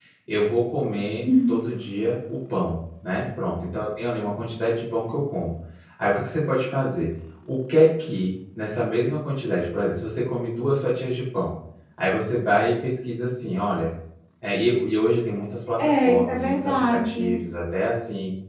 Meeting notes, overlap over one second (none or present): present